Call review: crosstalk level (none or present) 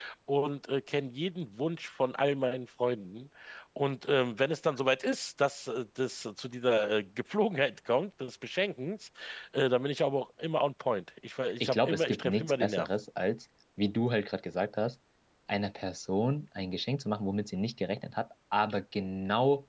present